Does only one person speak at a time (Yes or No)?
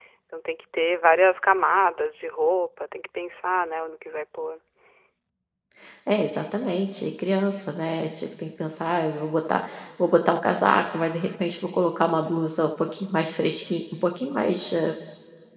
Yes